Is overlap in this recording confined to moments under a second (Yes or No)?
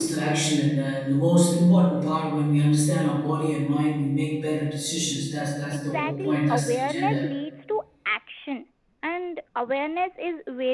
No